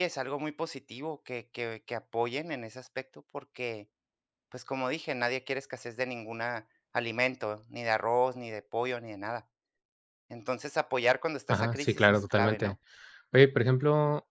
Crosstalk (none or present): present